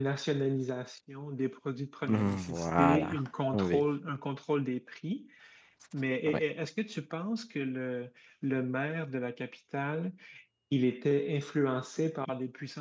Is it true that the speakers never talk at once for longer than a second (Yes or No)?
No